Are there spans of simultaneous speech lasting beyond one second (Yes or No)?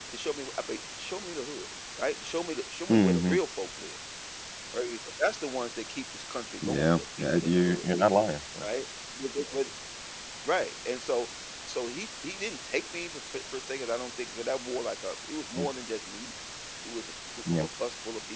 Yes